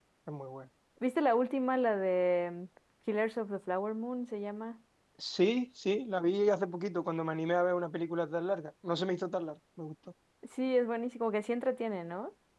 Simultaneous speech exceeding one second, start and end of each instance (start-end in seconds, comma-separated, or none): none